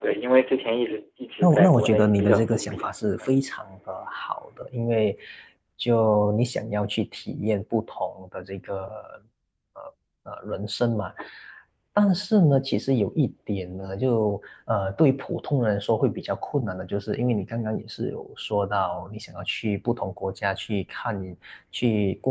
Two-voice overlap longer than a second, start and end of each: 1.4-3.0

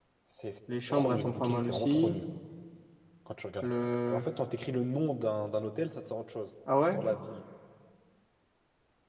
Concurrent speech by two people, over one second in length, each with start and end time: 0.9-2.2

